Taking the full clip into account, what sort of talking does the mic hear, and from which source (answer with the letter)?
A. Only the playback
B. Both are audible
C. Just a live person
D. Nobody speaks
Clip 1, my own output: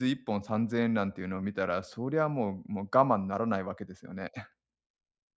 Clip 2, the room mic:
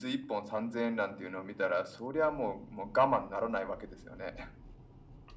A